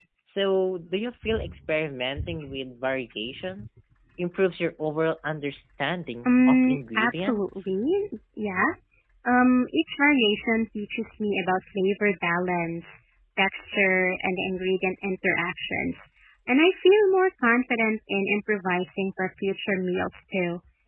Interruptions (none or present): present